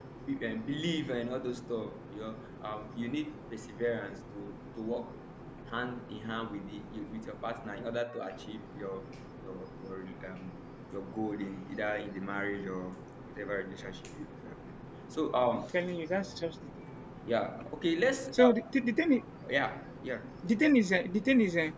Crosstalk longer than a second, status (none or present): none